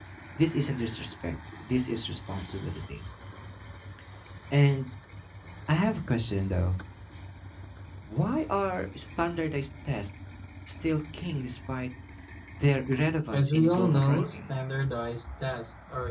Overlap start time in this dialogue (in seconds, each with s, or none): 13.3 s